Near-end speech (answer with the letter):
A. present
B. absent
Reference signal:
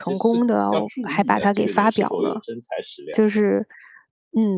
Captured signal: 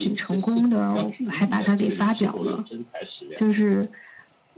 B